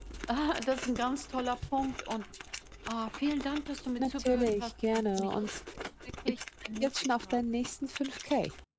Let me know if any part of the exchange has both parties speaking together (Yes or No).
Yes